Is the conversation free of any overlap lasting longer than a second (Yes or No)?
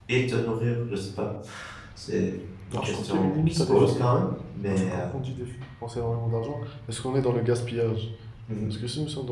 No